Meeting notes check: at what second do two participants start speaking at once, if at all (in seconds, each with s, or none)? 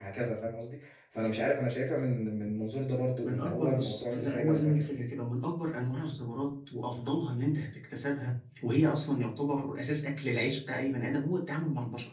3.2 s